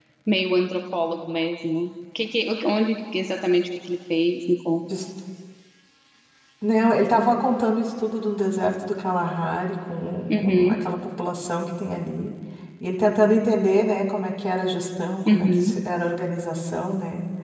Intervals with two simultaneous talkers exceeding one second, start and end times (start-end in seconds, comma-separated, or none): none